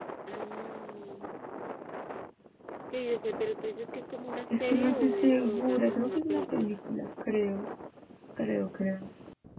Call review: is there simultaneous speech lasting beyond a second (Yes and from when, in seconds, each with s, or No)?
Yes, from 4.5 s